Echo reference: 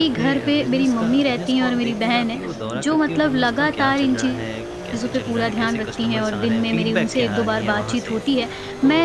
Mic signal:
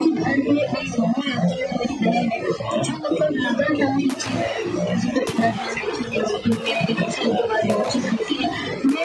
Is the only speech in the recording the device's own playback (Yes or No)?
Yes